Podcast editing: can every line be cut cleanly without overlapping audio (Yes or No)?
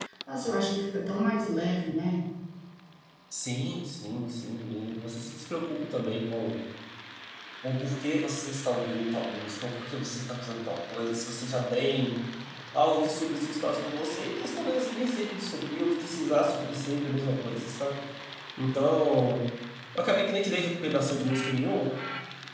Yes